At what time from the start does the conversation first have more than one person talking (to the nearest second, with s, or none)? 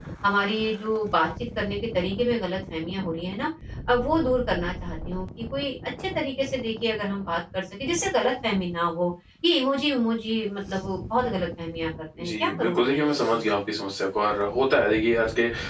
12 s